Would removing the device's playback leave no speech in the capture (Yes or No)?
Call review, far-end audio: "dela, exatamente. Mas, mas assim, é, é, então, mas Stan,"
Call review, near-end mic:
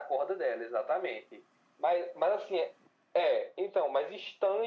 Yes